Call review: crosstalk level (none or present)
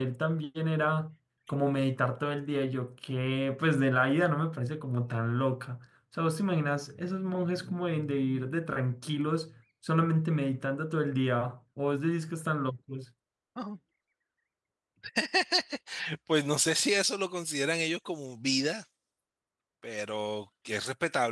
none